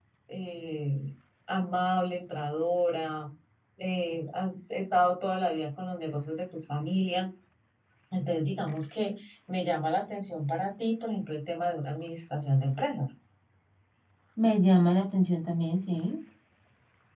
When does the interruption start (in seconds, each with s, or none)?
none